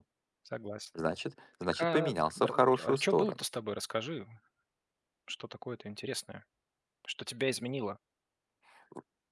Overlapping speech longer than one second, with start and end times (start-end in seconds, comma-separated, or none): 1.7-3.4